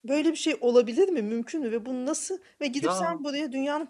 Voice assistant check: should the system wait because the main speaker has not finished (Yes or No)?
Yes